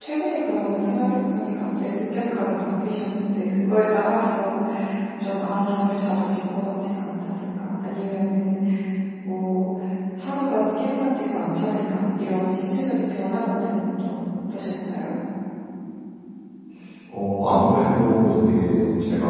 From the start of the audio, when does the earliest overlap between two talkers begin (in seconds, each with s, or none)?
none